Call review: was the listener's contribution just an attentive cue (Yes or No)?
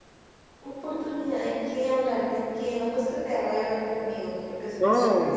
No